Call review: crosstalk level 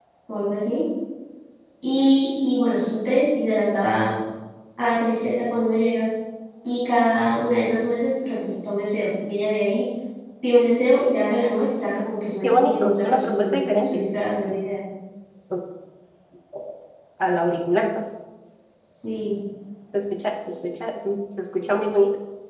present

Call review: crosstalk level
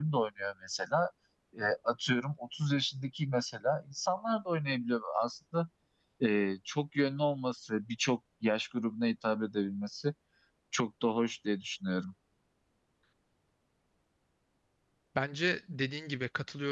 none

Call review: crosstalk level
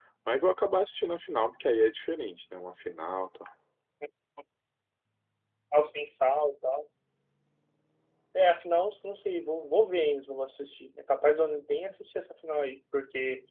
none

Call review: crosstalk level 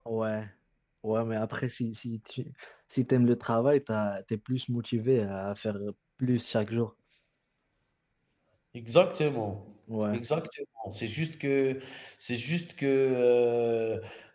none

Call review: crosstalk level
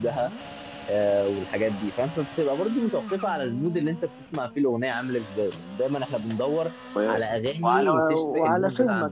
present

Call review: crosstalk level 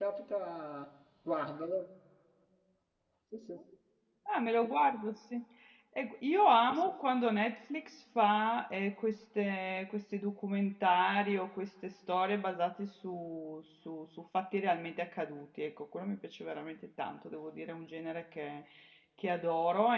none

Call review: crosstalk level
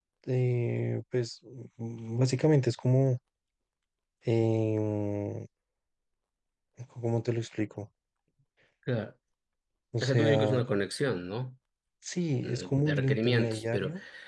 present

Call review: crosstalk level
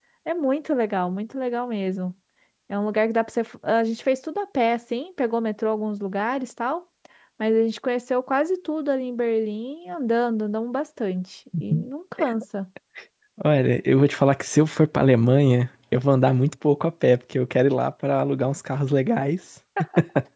none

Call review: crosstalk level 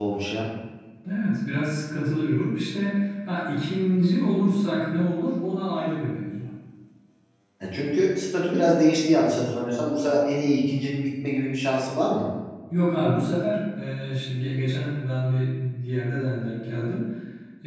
none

